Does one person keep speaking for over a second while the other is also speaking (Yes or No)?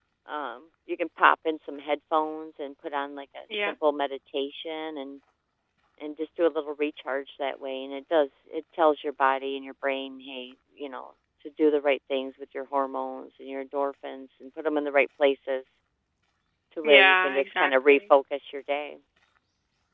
Yes